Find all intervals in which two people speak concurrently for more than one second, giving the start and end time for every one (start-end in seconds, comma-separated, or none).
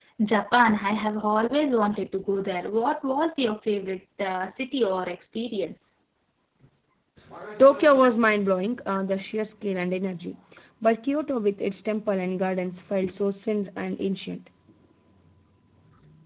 none